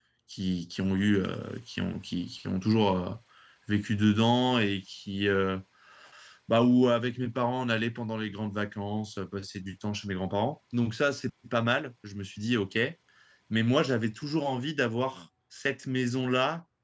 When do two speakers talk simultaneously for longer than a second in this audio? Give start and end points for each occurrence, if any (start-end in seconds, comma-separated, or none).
none